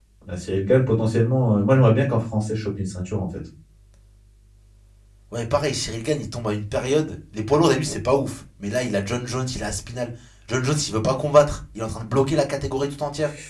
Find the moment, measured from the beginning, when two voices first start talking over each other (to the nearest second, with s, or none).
none